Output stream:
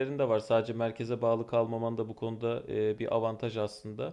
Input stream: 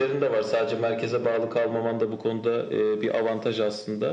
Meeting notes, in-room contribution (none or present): none